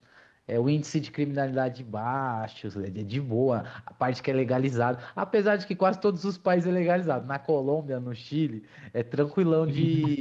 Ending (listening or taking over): listening